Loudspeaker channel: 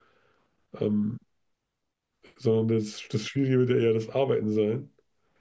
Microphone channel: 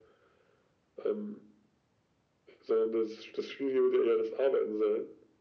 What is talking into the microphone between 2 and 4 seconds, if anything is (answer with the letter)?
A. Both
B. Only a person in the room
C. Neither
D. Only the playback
D